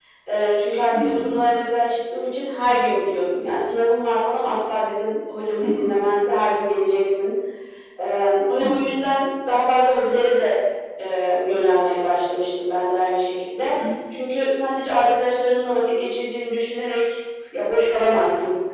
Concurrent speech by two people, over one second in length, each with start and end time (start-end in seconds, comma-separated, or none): none